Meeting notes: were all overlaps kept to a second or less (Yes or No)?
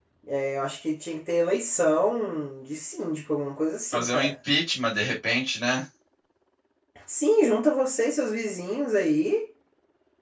Yes